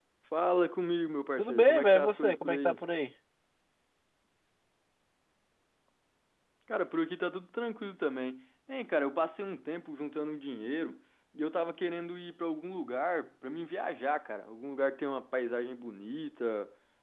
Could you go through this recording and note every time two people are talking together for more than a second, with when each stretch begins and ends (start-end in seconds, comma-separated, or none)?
1.4-2.8